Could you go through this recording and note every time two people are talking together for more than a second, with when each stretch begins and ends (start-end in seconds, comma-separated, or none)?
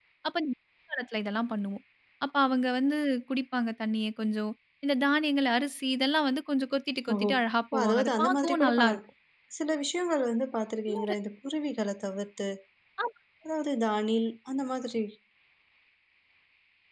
7.7-9.0